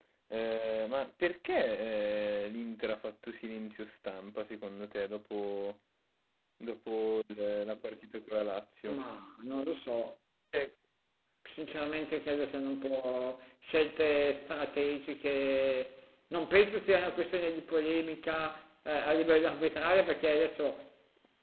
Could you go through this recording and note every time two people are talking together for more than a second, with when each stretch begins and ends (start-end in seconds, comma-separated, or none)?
none